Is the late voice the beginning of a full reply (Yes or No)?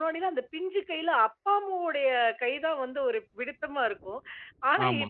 No